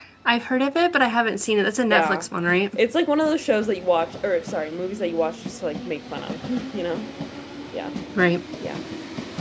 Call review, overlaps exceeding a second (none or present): none